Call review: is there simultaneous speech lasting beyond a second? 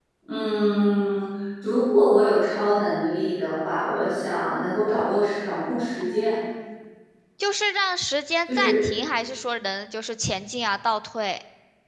No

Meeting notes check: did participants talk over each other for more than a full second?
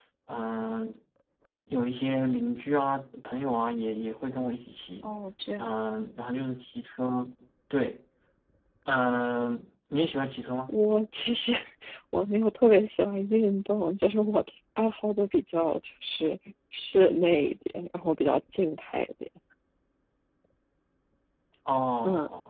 No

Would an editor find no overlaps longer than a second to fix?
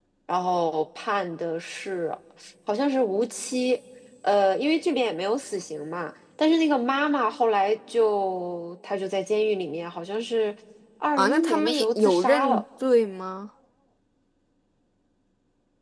No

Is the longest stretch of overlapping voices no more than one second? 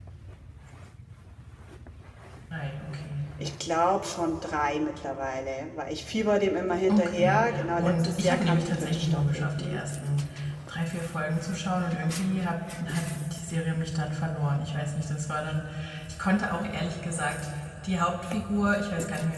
No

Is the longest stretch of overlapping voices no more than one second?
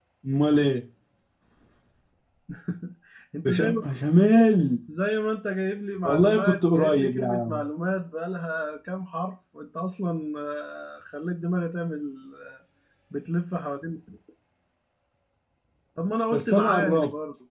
No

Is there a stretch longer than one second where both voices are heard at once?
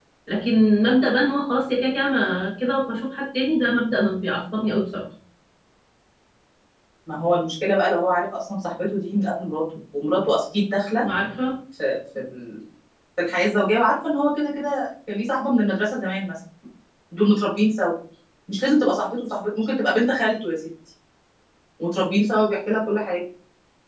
No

